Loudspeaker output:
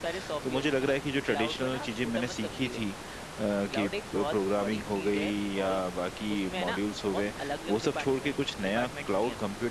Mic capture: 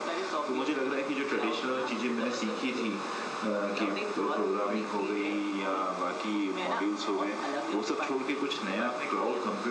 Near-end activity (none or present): none